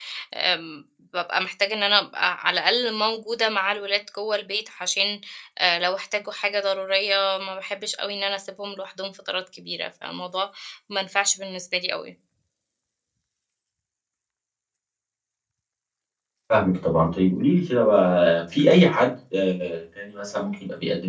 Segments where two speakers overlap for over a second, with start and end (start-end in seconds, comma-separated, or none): none